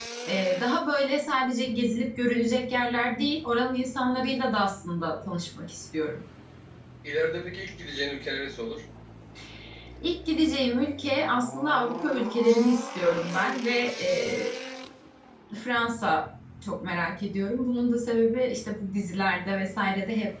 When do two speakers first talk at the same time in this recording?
none

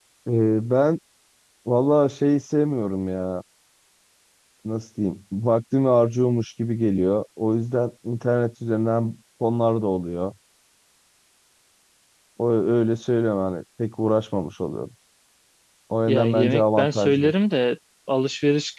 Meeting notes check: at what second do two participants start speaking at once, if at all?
16 s

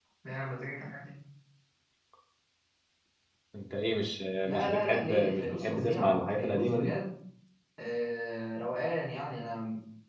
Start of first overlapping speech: 4 s

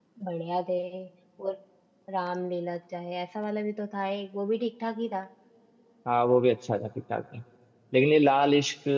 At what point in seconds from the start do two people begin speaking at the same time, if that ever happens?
none

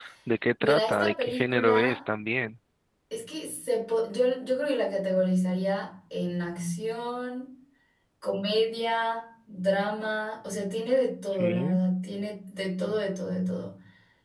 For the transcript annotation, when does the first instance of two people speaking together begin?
1 s

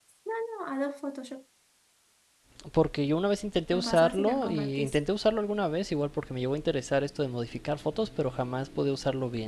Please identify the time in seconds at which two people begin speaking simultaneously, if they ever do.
4 s

